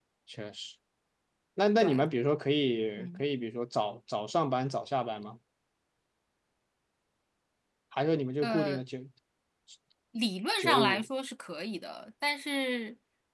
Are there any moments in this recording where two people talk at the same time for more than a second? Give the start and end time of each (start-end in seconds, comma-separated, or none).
none